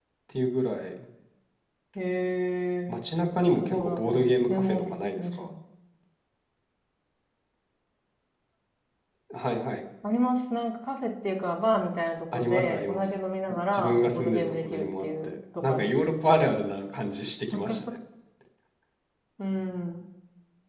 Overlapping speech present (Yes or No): Yes